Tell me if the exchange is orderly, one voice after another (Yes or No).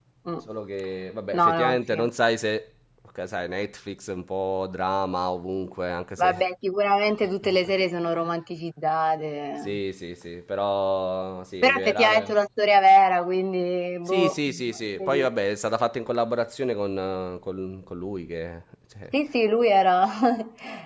No